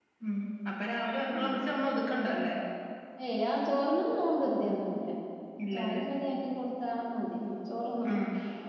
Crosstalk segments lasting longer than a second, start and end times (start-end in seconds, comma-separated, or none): none